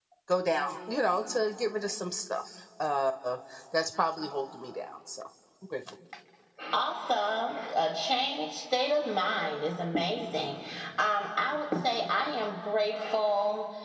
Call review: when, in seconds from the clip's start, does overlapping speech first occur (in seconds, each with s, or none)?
none